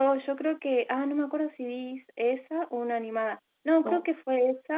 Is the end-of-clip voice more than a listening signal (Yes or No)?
No